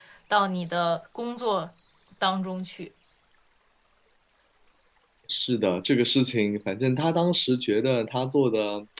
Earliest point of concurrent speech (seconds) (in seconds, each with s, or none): none